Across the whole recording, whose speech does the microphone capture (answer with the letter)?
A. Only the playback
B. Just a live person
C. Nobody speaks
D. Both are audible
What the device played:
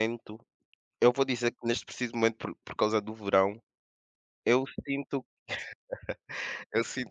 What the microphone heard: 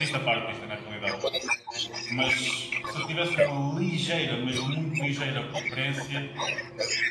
D